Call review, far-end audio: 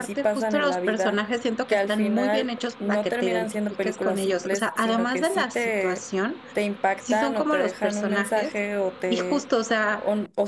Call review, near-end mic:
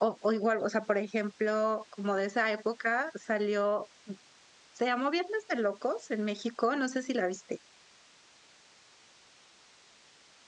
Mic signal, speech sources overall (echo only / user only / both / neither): user only